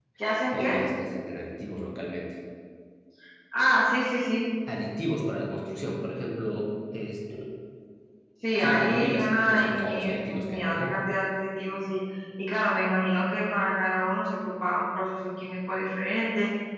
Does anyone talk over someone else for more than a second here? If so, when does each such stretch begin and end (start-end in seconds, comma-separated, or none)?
8.6-11.0